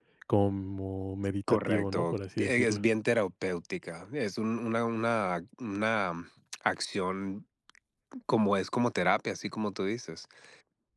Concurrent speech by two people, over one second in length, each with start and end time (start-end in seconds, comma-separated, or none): 1.5-2.8